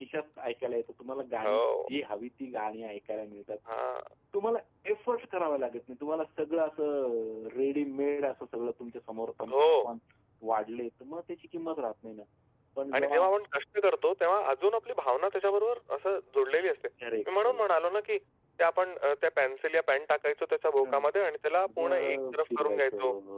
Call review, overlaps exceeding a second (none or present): present